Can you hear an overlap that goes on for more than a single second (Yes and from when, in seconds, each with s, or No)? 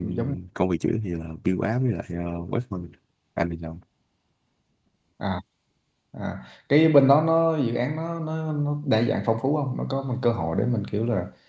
No